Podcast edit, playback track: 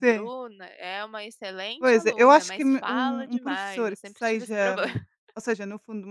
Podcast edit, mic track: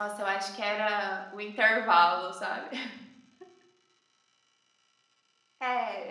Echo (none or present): none